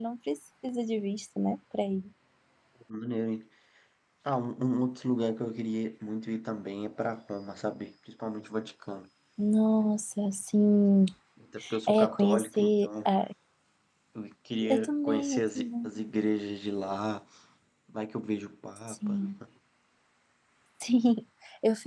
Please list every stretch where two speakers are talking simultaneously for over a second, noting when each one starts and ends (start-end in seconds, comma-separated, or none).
11.9-13.1, 14.7-15.9